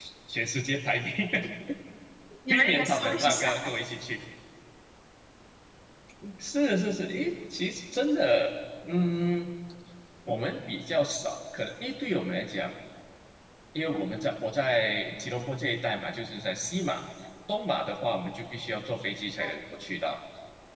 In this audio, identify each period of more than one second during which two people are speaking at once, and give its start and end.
2.5-3.7

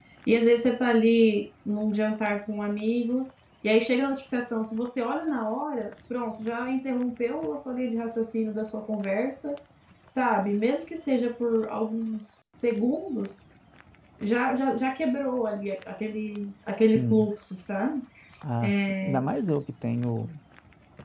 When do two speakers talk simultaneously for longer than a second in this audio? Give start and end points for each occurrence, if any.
none

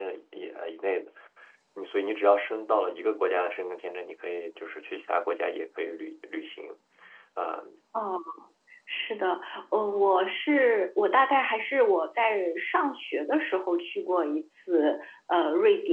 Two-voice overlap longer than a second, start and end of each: none

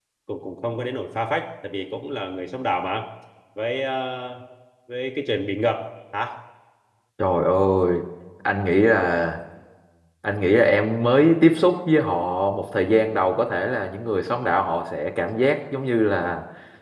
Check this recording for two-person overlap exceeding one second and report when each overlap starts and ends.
none

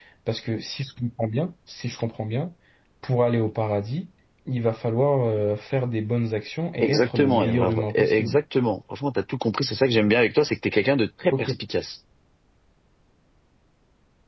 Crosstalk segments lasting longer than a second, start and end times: 6.8-8.4

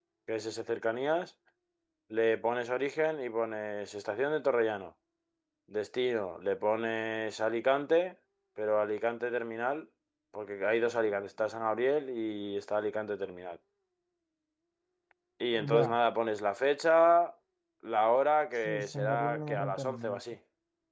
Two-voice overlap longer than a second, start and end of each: 18.6-20.2

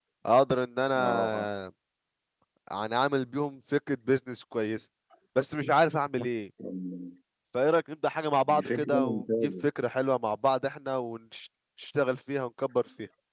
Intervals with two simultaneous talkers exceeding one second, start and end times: 8.5-9.7

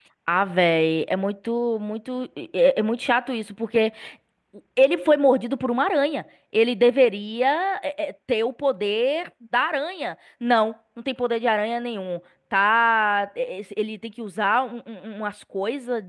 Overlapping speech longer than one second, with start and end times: none

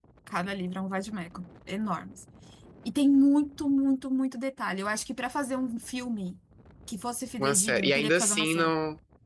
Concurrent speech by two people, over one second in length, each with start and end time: 7.4-8.7

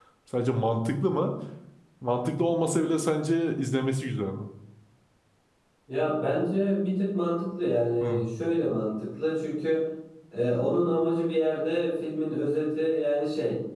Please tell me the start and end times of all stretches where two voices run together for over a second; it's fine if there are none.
none

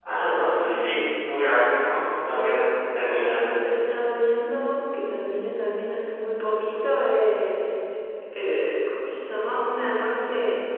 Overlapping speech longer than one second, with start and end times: none

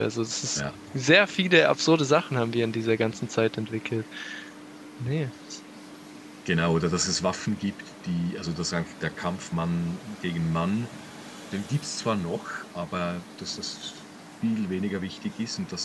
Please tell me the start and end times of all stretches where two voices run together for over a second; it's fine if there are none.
none

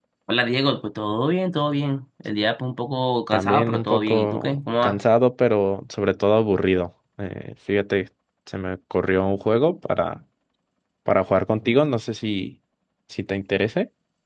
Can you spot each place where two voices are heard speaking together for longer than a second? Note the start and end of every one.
3.3-5.0

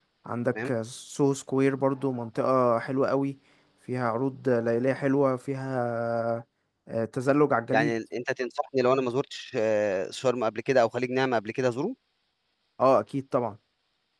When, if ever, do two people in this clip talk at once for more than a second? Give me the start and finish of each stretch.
none

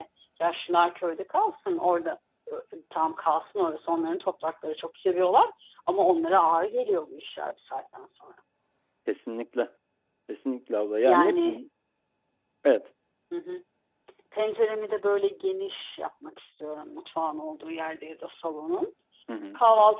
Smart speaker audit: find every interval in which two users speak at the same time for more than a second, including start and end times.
none

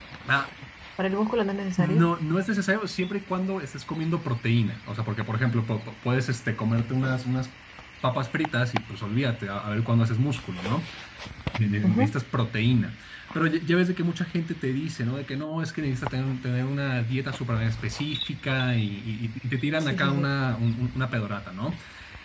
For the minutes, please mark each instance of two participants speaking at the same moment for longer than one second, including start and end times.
none

